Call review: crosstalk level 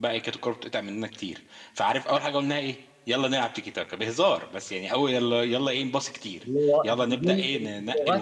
present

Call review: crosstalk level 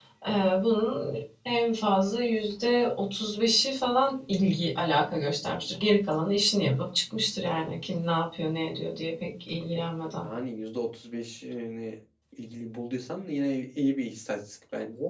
none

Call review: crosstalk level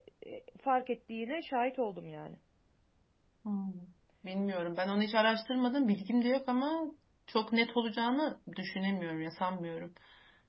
none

